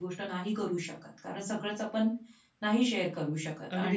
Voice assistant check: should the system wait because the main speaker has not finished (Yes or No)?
No